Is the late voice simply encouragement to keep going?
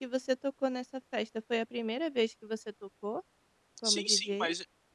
No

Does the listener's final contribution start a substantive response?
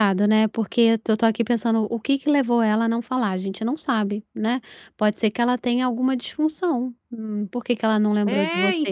Yes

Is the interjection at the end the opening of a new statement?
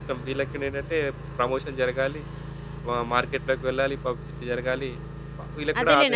Yes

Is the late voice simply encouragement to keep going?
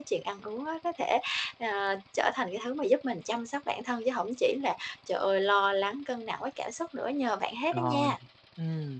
No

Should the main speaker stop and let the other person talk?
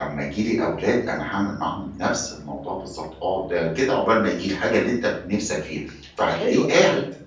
Yes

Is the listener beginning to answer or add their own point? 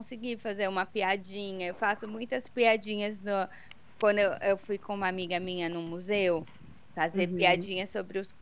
No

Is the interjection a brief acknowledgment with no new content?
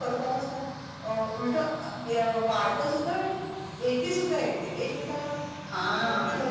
No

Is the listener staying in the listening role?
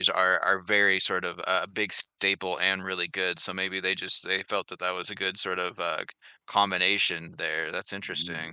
No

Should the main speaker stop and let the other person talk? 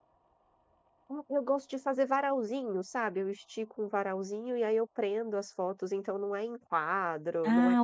Yes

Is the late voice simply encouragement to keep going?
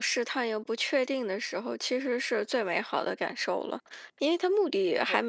Yes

